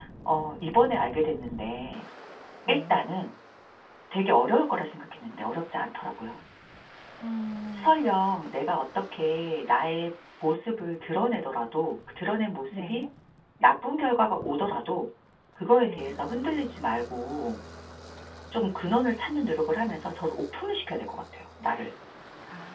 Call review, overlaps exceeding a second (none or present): none